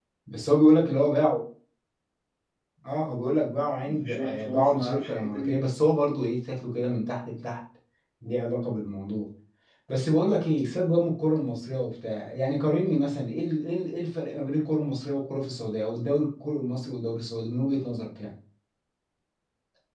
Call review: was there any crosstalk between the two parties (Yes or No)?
Yes